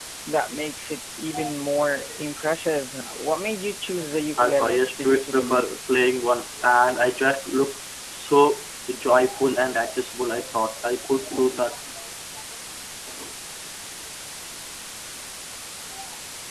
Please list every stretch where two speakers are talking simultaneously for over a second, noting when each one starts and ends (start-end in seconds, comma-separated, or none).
4.4-5.6